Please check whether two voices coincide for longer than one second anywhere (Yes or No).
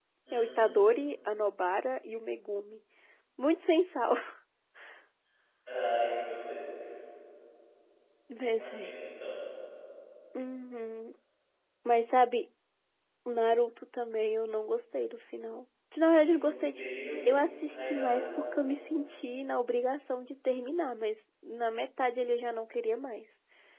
Yes